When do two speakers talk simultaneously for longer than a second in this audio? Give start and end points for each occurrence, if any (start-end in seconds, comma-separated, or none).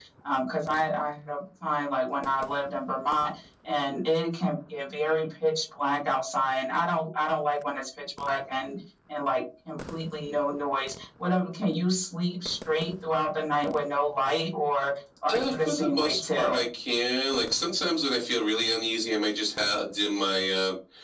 15.3-16.6